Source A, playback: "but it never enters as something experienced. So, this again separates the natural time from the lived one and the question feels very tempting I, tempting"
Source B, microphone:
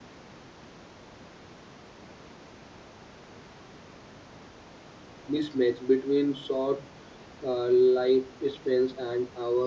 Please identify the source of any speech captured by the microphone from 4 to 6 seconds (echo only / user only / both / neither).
user only